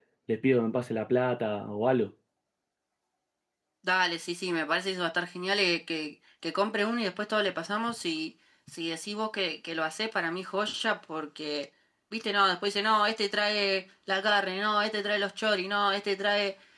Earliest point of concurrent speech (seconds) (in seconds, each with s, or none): none